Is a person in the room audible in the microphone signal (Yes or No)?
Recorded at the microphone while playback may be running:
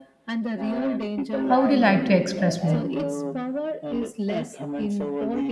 Yes